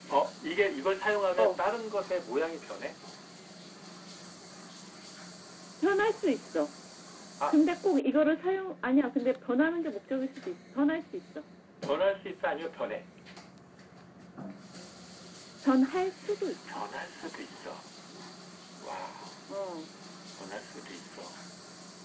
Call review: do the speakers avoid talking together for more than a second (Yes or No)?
Yes